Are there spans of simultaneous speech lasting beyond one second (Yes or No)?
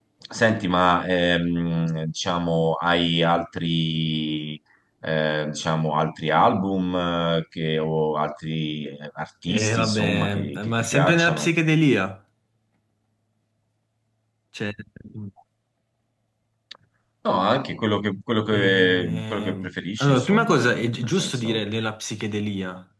Yes